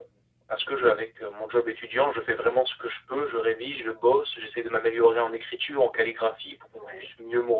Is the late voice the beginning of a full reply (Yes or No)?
No